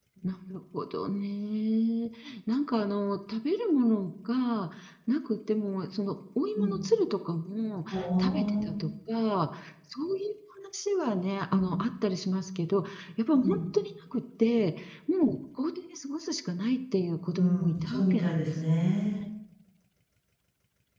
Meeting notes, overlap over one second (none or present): present